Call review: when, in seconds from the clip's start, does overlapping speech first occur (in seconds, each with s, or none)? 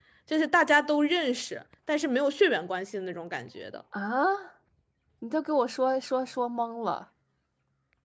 none